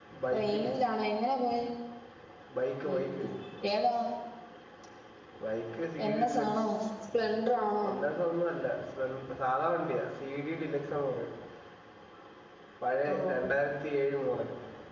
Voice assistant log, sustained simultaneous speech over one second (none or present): none